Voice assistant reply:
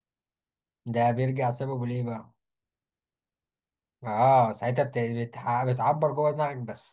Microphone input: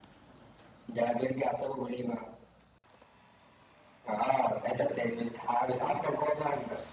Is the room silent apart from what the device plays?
No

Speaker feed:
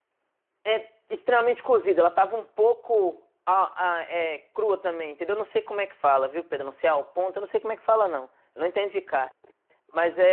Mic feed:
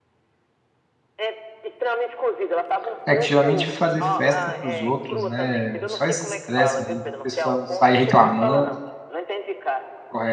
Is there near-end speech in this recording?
Yes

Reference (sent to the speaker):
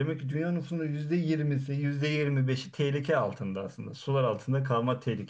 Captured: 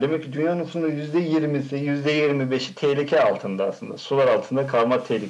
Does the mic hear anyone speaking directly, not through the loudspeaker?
No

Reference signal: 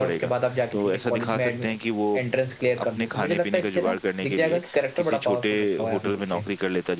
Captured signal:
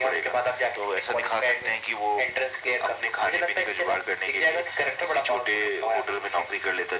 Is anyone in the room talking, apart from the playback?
No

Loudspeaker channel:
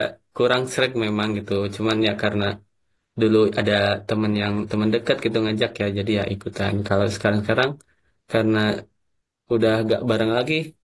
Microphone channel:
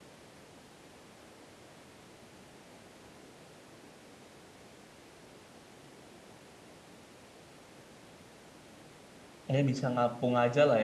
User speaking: Yes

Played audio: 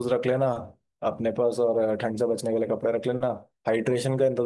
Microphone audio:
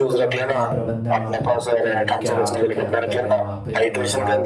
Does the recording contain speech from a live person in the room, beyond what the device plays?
Yes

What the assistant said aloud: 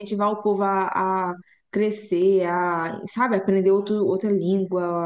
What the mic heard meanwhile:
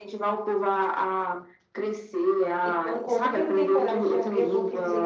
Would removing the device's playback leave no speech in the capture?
No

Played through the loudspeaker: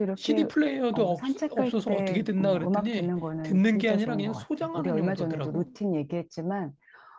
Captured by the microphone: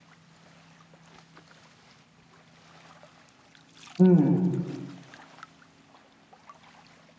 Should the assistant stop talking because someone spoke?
Yes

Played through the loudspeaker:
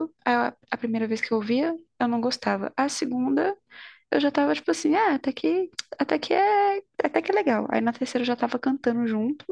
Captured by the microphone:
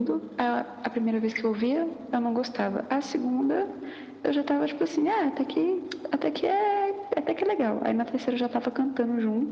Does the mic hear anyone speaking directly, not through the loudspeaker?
No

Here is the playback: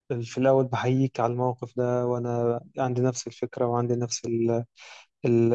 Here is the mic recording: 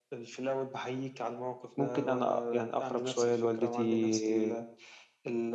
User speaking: Yes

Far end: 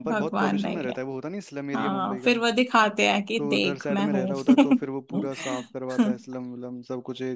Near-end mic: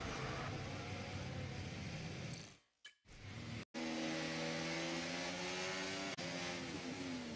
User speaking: No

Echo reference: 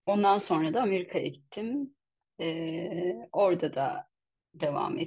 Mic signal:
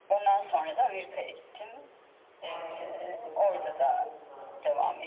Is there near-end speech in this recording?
Yes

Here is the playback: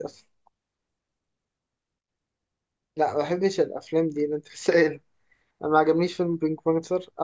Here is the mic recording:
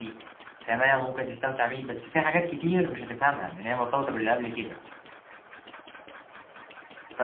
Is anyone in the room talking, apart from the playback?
Yes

